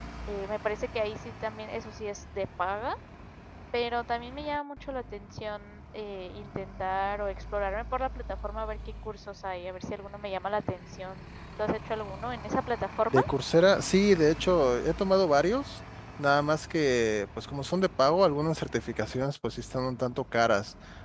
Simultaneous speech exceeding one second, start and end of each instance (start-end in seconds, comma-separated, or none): none